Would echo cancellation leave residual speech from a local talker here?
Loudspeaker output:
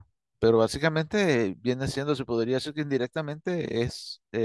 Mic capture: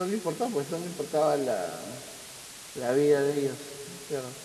Yes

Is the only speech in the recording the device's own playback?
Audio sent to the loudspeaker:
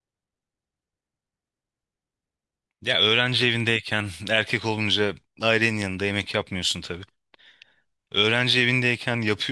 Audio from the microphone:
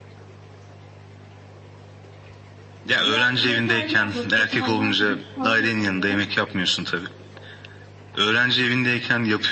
No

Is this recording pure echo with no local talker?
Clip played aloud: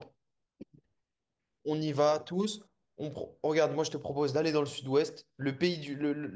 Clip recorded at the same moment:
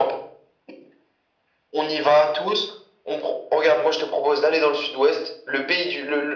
Yes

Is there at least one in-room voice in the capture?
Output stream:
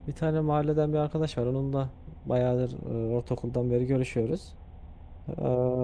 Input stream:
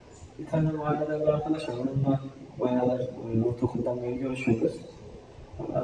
No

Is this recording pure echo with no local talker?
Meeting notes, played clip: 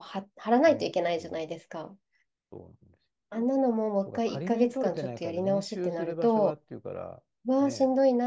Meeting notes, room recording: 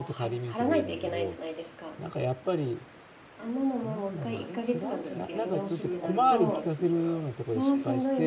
No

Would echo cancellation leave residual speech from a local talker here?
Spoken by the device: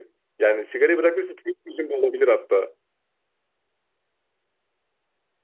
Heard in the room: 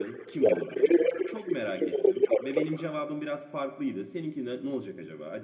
Yes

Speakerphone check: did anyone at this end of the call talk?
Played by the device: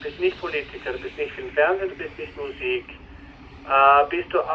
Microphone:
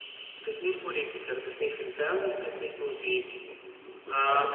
Yes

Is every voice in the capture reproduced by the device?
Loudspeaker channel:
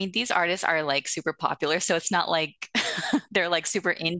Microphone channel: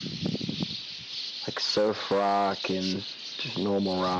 No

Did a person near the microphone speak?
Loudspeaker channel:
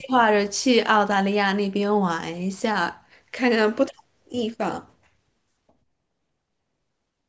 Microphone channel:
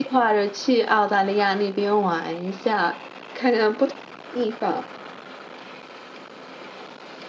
No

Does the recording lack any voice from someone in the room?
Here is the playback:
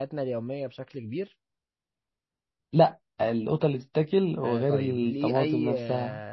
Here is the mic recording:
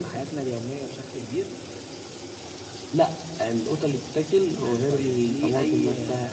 Yes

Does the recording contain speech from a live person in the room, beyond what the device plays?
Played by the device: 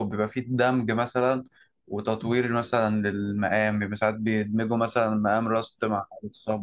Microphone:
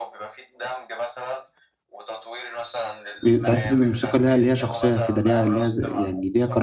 Yes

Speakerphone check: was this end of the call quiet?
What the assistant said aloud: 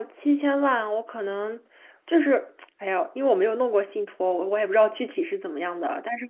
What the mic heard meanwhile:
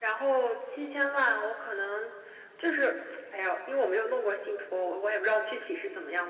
Yes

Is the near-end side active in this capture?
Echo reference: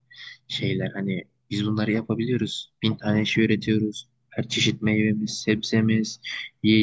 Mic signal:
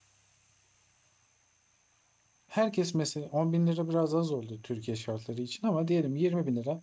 Yes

